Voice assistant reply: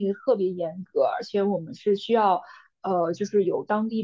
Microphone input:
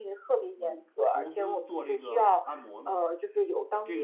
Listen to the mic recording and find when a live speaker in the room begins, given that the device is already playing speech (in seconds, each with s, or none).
0.5 s